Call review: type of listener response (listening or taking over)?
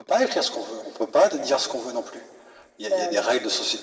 listening